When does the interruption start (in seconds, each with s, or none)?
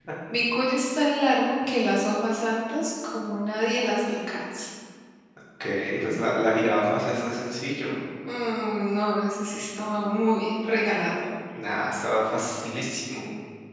none